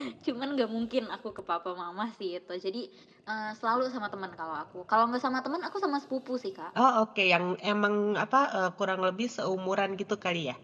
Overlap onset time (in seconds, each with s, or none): none